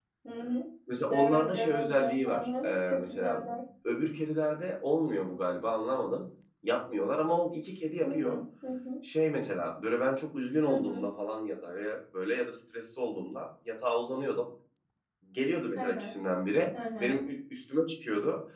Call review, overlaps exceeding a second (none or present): present